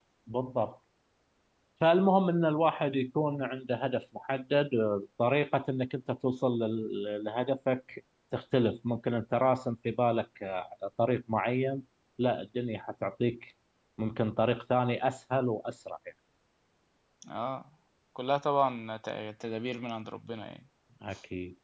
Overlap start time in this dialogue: none

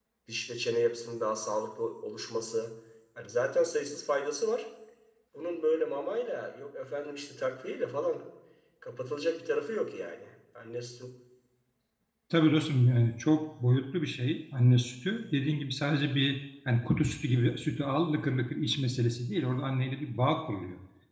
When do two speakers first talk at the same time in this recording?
none

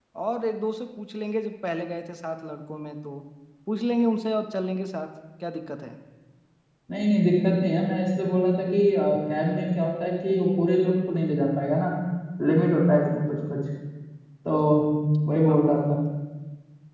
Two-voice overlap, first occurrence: none

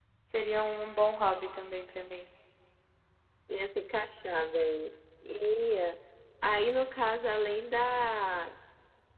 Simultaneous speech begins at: none

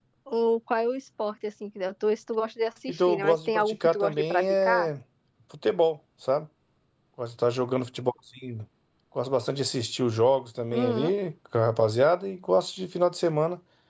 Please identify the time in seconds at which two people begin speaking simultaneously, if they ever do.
2.9 s

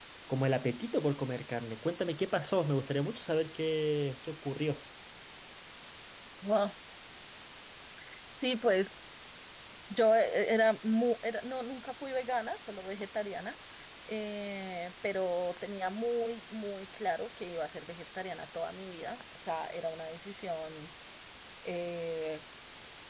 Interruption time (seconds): none

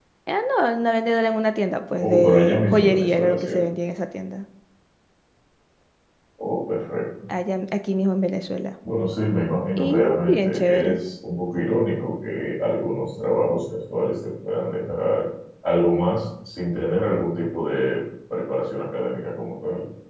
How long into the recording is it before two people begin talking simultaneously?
2.0 s

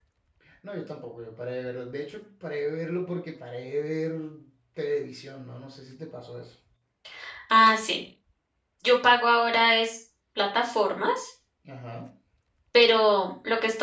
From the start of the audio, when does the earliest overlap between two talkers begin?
none

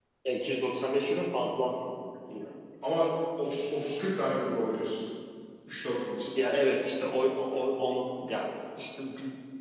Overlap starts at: none

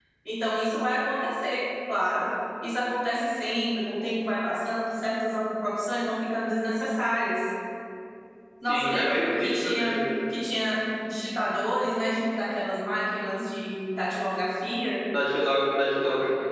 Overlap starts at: 8.7 s

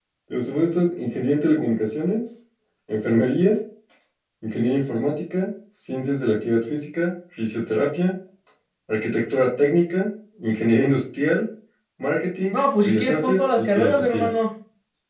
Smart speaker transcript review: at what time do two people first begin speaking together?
12.5 s

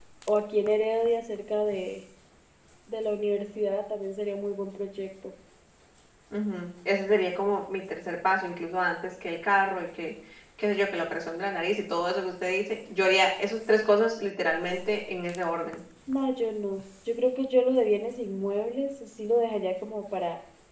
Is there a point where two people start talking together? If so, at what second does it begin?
none

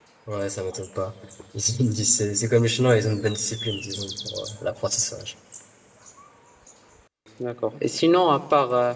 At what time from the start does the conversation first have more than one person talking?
none

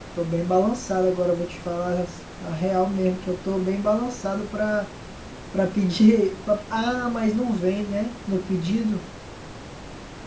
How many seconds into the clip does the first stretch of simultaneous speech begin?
none

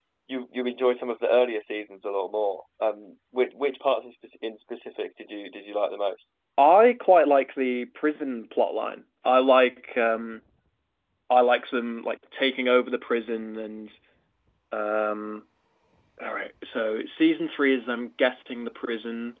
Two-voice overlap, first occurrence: none

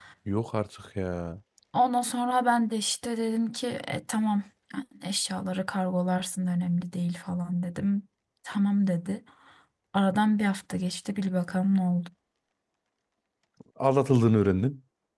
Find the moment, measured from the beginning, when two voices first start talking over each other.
none

